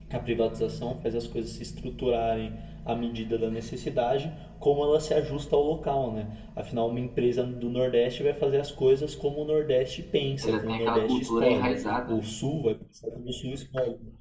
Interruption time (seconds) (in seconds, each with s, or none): 10.4 s